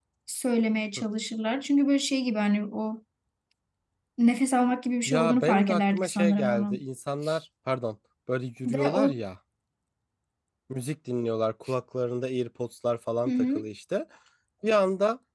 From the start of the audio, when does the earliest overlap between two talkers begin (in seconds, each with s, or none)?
5.1 s